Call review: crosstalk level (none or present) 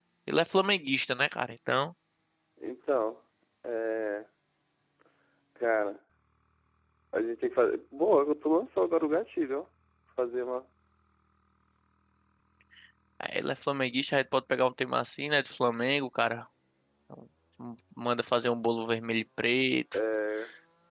none